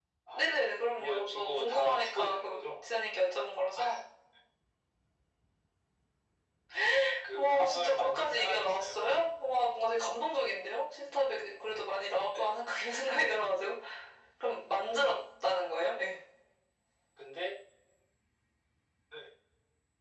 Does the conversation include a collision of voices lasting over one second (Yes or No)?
Yes